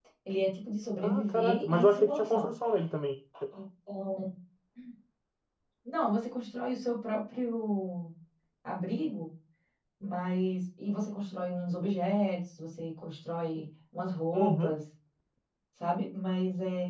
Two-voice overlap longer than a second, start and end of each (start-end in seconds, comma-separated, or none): 1.0-2.5